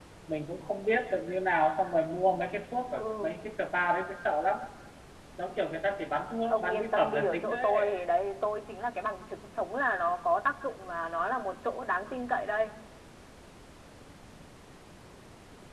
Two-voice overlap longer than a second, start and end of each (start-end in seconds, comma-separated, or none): 6.5-7.9